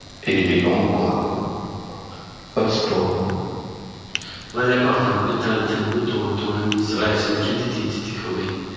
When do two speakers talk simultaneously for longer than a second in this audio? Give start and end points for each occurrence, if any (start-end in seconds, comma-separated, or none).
none